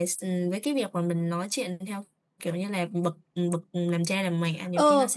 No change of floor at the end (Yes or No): No